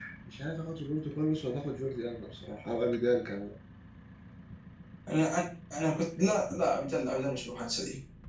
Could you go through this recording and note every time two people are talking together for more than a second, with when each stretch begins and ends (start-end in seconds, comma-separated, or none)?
none